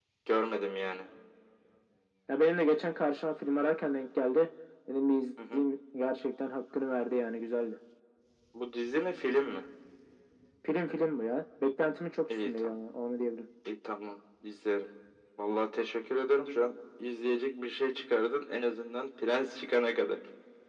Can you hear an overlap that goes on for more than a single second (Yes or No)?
No